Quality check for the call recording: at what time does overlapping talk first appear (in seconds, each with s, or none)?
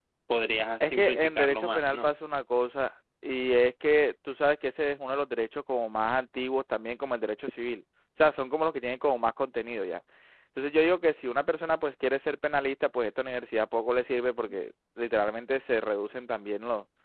0.8 s